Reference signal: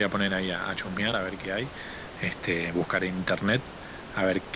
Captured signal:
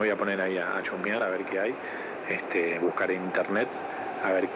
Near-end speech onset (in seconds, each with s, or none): none